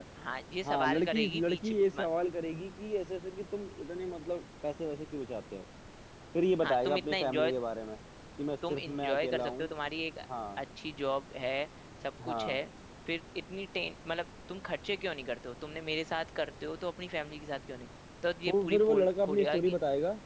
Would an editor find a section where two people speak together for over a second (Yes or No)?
Yes